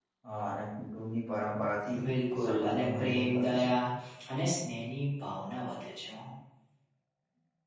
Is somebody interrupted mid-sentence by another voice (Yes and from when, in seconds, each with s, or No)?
Yes, from 2.4 s